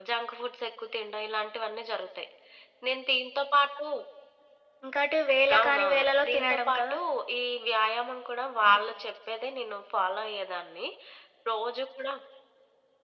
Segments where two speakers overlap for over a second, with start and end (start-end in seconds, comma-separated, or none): 5.6-6.9